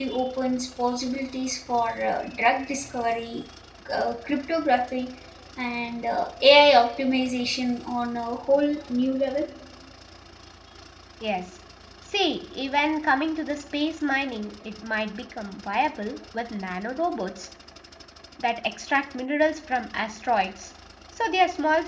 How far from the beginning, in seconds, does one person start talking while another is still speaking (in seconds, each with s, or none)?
none